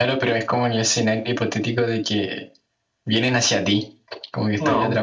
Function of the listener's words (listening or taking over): taking over